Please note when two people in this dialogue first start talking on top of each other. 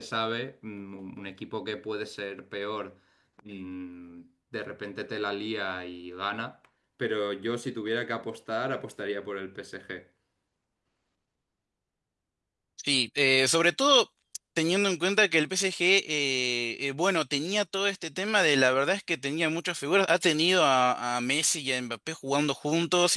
none

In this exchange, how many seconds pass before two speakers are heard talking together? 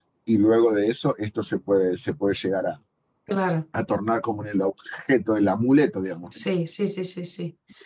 none

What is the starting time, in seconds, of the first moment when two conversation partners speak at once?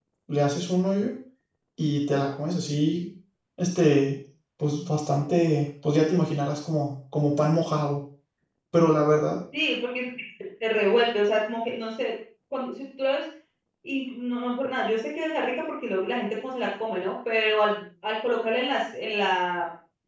none

